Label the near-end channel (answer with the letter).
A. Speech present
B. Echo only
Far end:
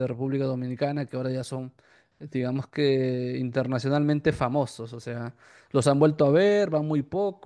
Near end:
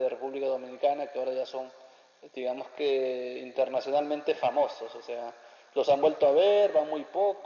B